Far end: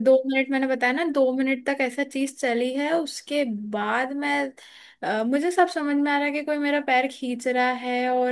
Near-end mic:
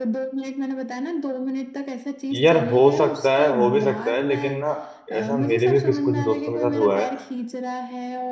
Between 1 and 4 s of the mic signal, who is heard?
both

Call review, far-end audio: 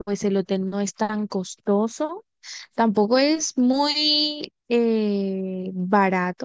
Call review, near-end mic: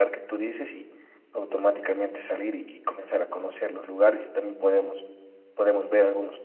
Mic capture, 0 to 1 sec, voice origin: user only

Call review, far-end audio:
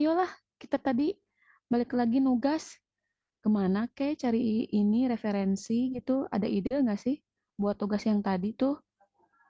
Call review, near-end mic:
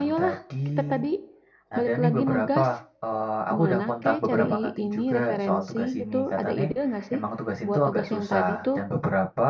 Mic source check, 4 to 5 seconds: both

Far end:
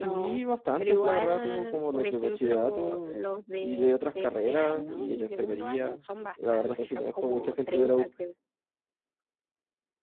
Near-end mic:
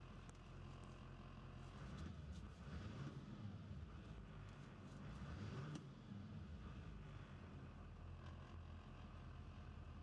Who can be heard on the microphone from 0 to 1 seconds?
neither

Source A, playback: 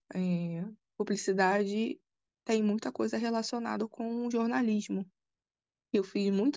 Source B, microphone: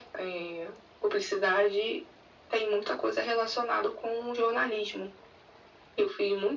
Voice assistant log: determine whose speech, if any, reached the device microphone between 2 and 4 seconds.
echo only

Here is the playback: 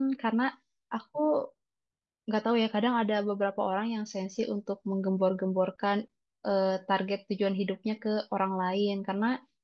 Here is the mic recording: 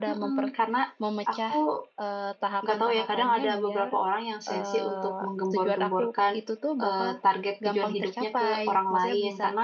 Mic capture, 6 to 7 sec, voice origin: both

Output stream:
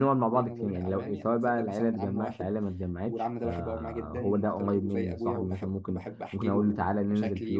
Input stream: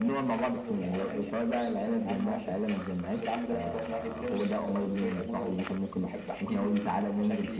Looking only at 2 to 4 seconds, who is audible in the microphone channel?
echo only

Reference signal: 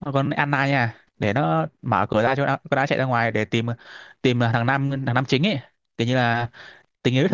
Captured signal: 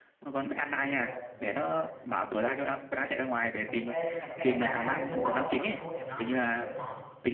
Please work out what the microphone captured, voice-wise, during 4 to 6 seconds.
both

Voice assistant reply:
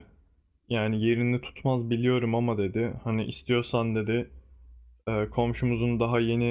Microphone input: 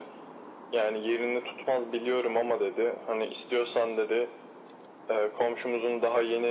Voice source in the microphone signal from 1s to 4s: echo only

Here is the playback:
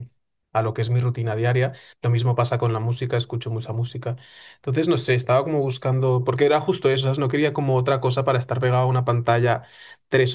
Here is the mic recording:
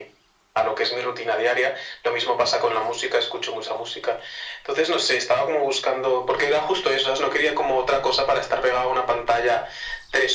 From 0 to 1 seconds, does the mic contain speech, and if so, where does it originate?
echo only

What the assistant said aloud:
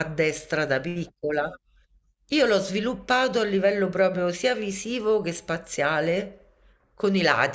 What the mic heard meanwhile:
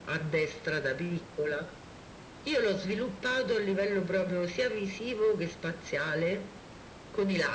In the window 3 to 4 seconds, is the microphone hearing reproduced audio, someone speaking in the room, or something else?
echo only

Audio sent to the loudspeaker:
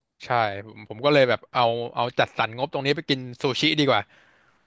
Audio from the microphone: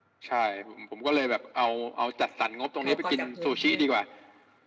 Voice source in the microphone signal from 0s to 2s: echo only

